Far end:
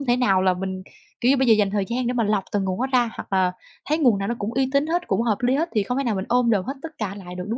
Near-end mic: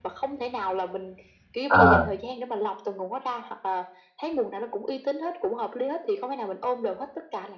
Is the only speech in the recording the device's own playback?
No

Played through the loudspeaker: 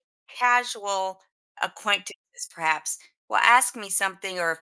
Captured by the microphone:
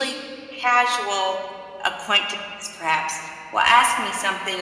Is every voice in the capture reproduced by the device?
Yes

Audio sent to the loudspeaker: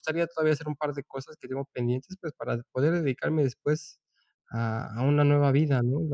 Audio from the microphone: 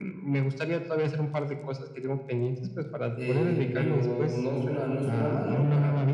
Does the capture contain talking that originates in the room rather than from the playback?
Yes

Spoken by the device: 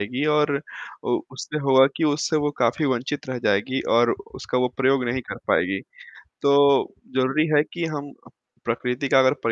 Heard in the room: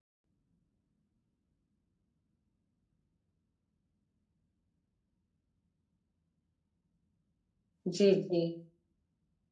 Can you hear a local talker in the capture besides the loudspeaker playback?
Yes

